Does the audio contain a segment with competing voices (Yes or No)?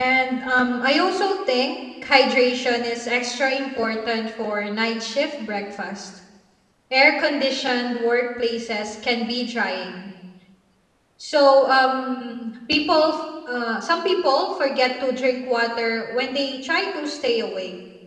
No